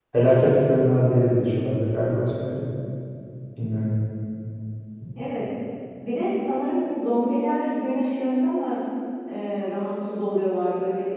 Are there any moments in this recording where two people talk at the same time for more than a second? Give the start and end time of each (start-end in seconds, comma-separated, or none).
none